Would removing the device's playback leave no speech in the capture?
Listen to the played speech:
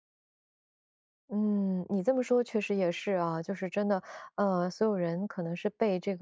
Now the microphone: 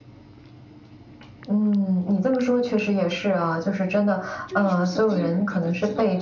No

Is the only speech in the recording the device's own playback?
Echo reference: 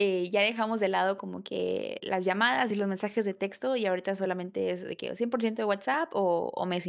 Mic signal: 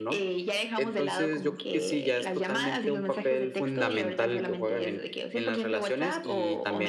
No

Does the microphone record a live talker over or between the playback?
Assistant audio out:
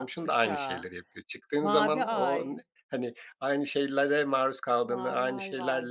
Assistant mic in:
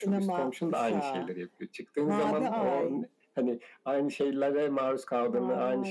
No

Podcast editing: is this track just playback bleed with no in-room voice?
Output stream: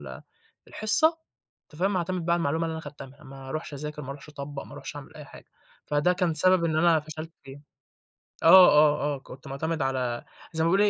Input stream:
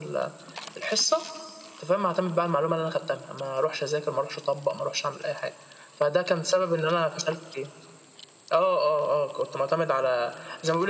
Yes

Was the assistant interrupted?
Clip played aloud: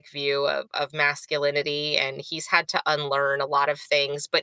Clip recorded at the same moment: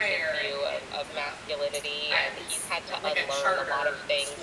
Yes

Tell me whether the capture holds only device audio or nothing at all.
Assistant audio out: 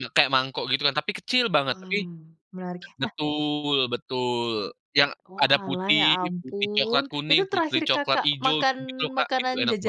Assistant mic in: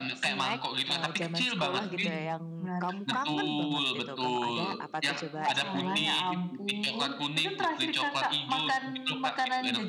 No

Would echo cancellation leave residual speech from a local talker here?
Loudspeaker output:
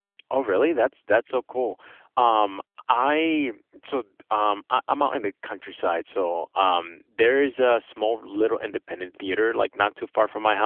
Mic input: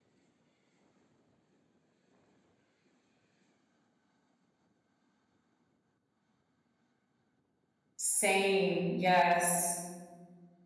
Yes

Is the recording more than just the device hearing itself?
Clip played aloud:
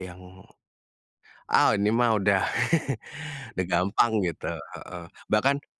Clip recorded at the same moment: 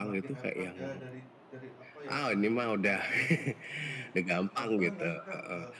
Yes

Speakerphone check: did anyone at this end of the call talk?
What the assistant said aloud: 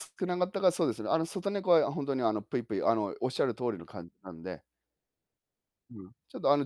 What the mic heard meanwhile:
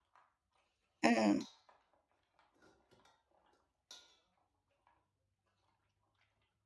Yes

